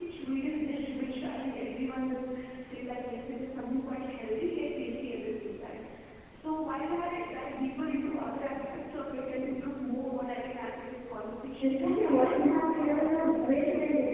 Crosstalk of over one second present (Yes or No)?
Yes